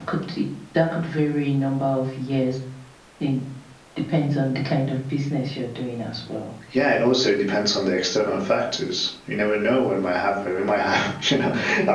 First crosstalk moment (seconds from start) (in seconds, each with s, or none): none